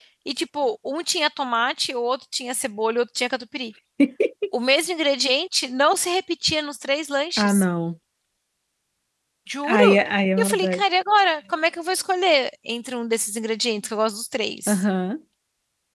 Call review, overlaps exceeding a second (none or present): none